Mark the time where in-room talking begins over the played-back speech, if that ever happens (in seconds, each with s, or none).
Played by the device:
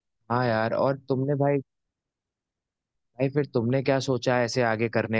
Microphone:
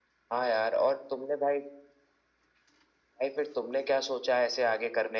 none